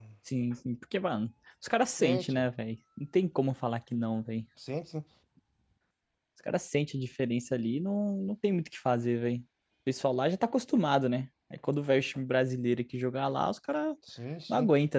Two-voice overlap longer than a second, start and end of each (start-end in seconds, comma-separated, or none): none